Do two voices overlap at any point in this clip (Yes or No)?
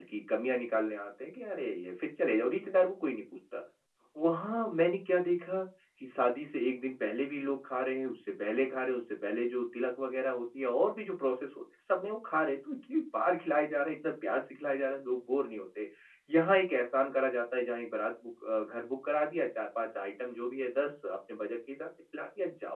No